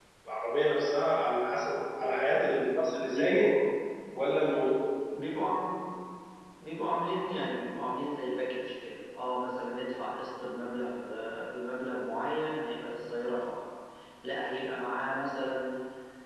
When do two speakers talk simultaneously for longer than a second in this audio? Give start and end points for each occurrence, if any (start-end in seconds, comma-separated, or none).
none